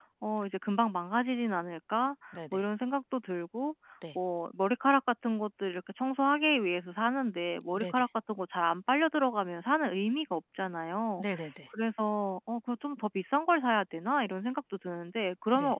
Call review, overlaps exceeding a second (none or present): none